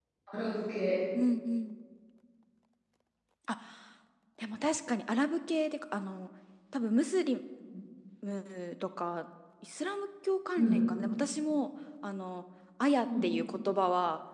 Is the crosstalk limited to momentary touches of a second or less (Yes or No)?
Yes